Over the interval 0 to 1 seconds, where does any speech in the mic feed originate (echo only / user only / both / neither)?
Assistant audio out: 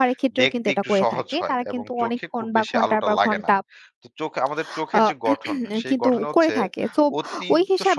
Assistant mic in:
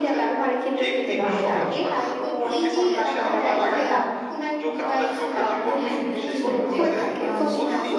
echo only